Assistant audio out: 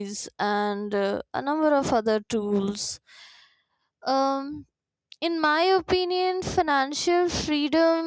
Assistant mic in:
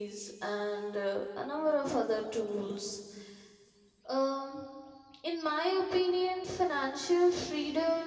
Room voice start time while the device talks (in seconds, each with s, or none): none